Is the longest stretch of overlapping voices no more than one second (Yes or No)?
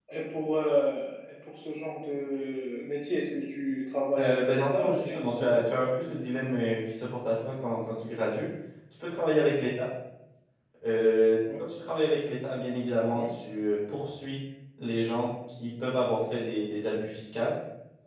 No